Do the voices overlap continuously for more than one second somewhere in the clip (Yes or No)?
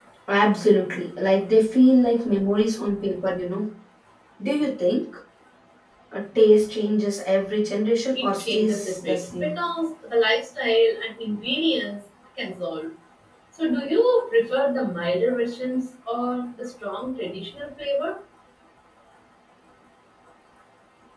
Yes